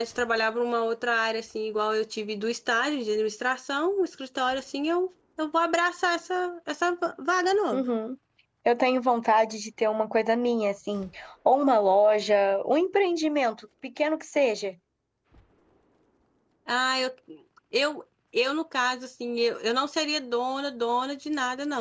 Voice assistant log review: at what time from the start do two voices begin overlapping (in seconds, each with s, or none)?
none